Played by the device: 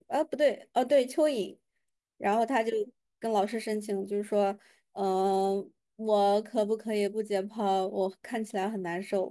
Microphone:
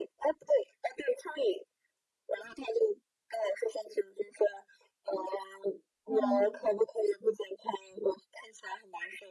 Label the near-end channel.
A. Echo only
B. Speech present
B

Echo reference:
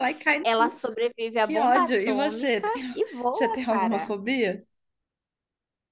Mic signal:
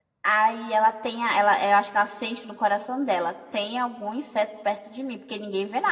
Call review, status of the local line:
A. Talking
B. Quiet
A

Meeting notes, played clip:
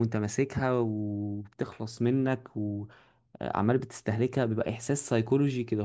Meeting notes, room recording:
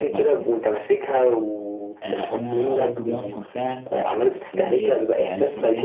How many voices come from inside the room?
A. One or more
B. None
A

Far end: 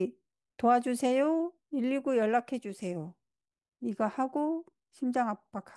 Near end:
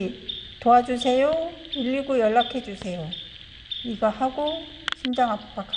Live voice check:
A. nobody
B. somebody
A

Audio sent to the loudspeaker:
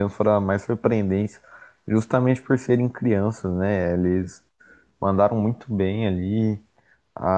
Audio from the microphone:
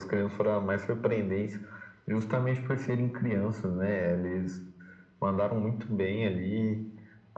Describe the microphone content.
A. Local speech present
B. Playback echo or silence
B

